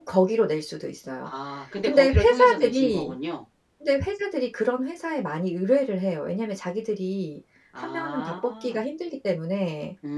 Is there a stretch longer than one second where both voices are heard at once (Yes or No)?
Yes